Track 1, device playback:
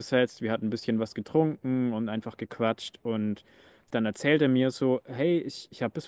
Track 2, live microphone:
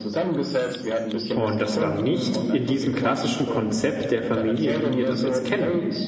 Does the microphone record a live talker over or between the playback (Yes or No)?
Yes